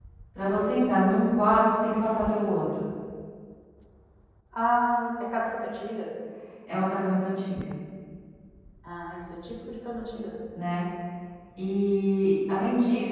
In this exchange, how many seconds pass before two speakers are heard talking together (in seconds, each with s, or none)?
none